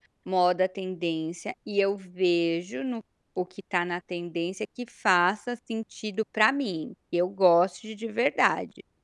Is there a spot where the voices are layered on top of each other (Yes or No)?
No